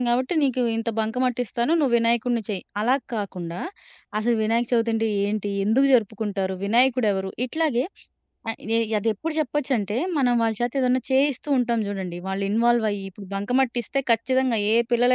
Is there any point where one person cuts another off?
No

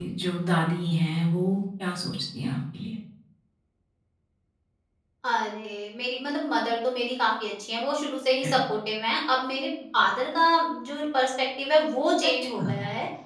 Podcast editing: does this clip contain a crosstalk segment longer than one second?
No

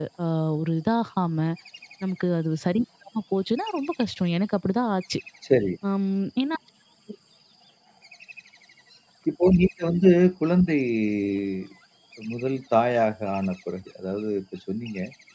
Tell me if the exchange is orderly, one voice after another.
Yes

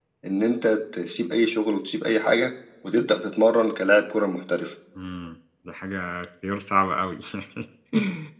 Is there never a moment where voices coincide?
Yes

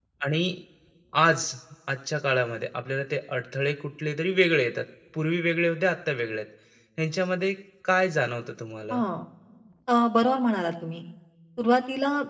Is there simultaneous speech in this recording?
No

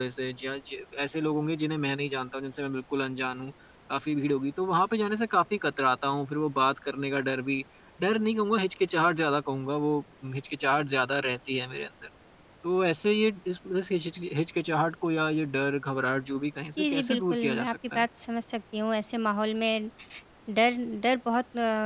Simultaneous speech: Yes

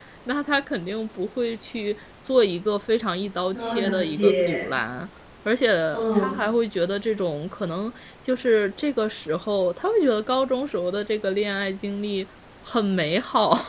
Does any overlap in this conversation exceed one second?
Yes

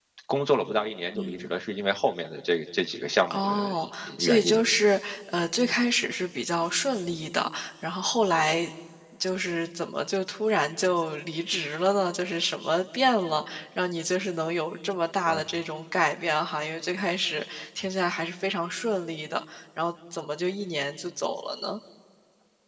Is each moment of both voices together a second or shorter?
Yes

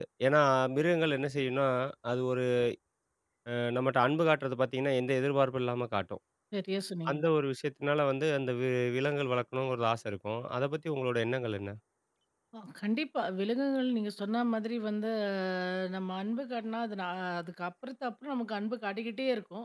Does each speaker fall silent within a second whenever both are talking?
Yes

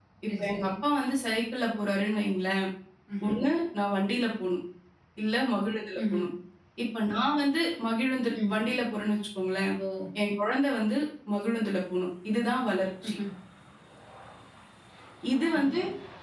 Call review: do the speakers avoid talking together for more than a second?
Yes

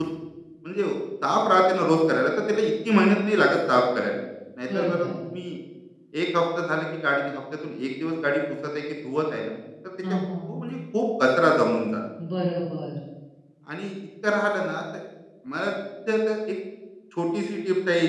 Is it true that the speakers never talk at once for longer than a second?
Yes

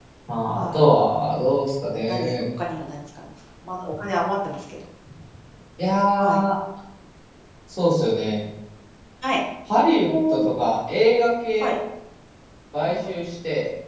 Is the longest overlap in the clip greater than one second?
No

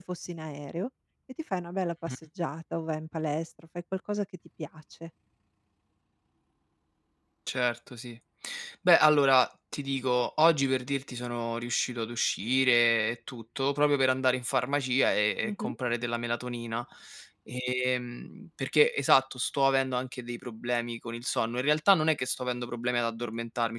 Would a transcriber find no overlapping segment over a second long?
Yes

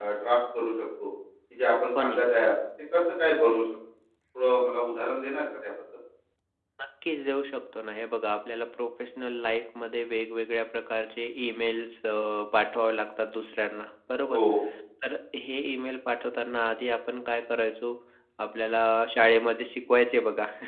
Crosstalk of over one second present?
No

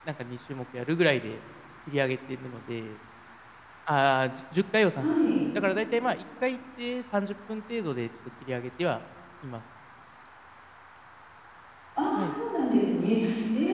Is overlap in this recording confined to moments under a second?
Yes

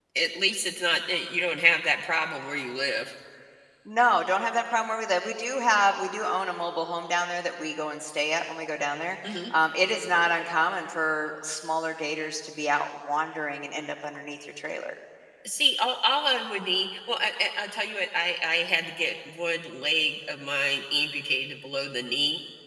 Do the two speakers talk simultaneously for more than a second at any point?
No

